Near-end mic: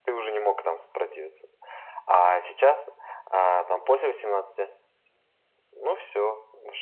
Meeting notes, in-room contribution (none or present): none